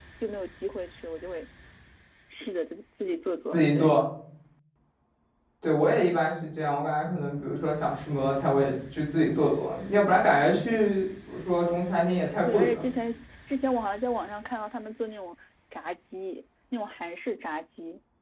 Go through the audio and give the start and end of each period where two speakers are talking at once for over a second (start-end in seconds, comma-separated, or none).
none